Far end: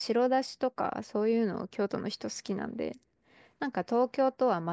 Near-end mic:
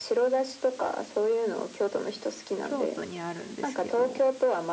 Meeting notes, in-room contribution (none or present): present